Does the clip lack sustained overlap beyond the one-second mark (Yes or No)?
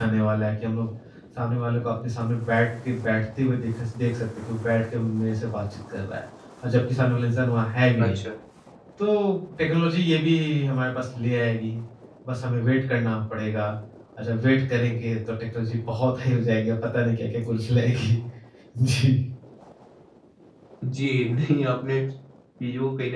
Yes